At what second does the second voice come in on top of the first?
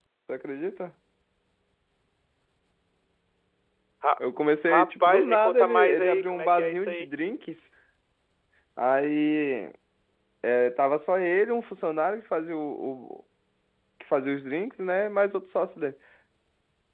4.7 s

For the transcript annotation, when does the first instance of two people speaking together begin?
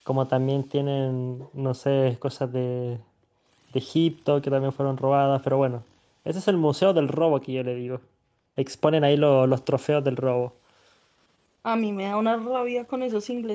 none

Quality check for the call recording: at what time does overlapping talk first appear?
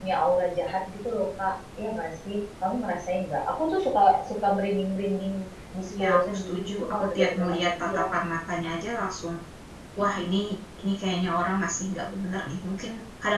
6.0 s

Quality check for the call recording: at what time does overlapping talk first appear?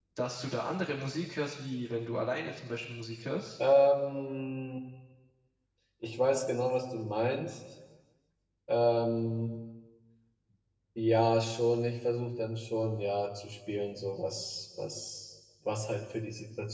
none

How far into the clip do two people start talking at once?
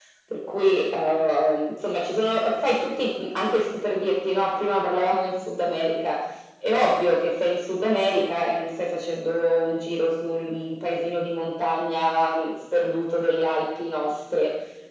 none

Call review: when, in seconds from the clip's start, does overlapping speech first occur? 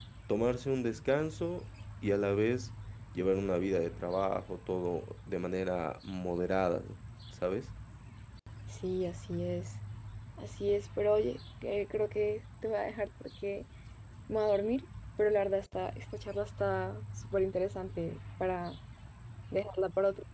none

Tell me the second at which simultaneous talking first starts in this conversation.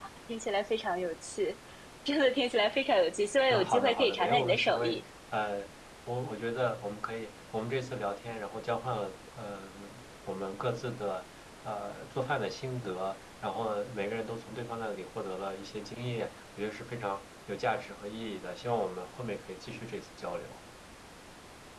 3.5 s

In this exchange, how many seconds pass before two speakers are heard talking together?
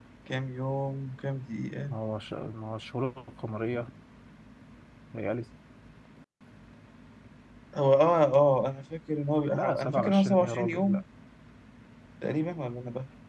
9.5 s

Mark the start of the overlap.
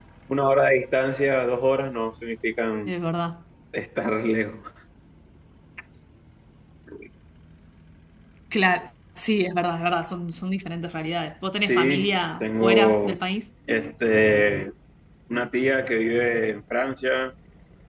11.6 s

